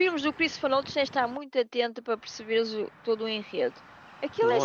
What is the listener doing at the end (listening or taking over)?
listening